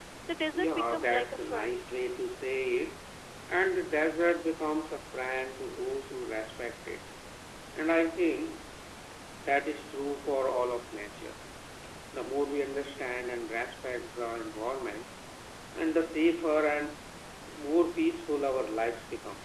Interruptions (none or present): present